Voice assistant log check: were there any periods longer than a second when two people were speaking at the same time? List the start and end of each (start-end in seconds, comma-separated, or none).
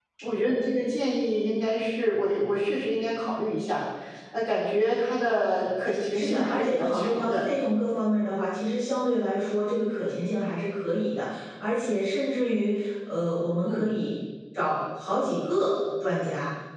6.1-7.4